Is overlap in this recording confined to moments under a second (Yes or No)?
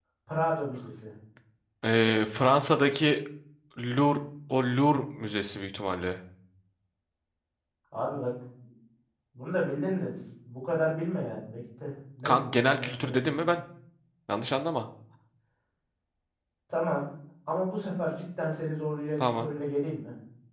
No